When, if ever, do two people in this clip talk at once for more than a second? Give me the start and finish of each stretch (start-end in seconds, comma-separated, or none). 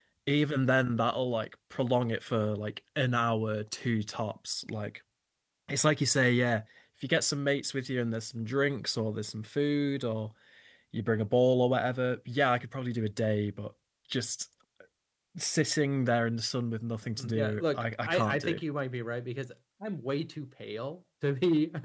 17.2-18.6